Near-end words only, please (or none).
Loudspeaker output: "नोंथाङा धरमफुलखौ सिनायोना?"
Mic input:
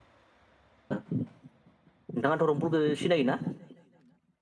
none